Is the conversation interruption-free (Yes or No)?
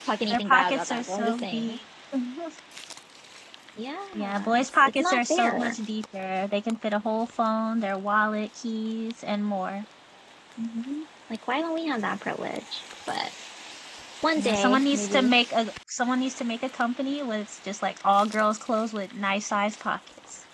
No